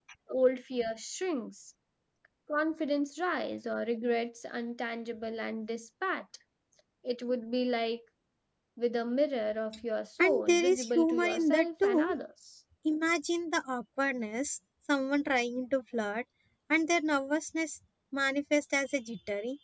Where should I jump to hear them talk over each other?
10 s

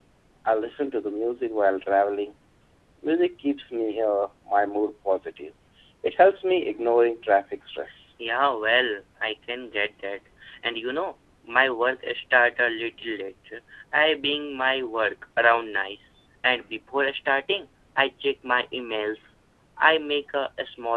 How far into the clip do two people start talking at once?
none

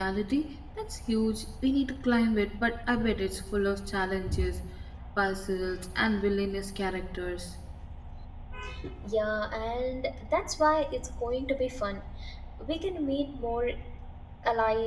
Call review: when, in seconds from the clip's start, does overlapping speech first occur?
none

